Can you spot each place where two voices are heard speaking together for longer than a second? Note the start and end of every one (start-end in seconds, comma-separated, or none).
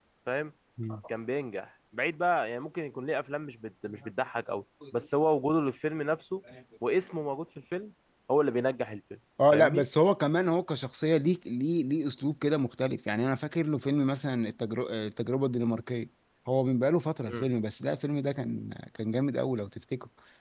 none